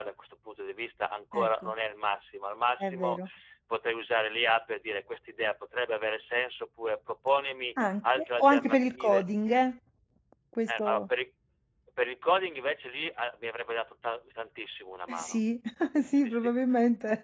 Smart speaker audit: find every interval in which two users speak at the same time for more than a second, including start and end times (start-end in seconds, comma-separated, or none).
8.0-9.2